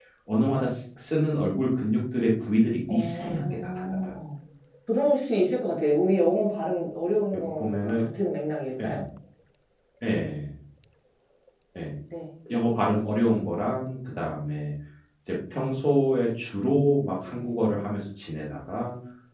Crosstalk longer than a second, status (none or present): present